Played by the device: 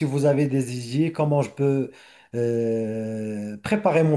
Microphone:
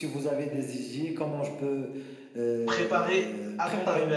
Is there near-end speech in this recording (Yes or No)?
Yes